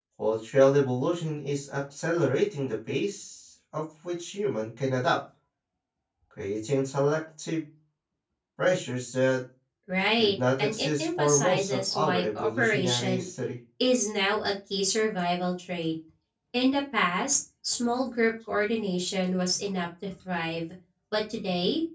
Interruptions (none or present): present